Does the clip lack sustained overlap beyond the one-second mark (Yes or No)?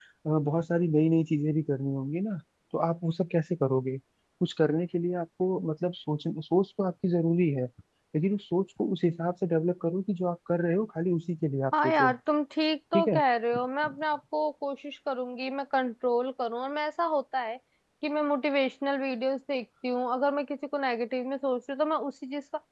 Yes